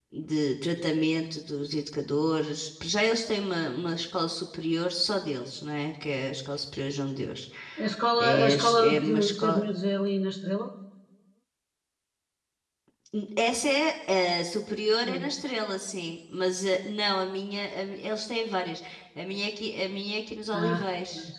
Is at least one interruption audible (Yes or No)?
Yes